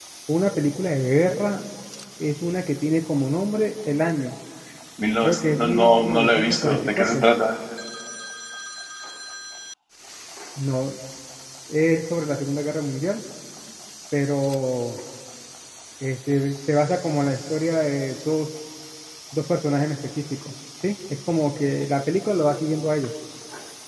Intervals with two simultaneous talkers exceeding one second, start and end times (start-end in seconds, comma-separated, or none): 5.2-7.3